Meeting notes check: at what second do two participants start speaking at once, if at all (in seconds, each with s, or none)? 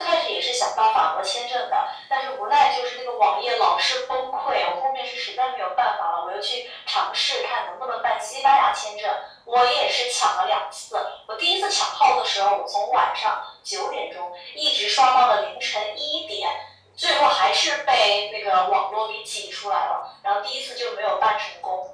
none